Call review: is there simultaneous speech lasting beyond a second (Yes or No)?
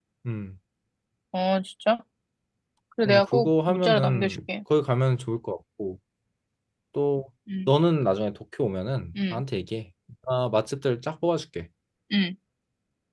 Yes